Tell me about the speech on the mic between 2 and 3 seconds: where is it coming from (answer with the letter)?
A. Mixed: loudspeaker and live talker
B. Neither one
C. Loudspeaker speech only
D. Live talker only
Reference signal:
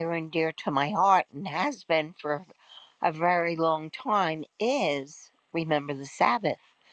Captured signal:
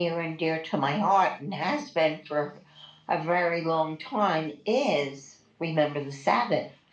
C